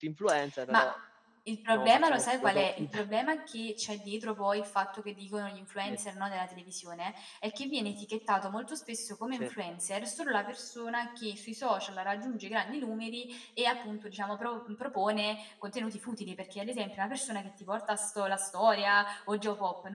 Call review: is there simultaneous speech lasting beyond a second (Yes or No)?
Yes